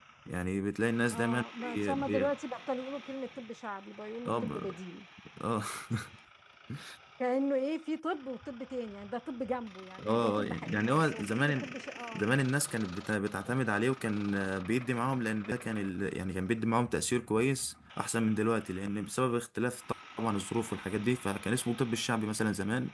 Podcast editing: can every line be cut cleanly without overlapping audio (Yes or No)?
No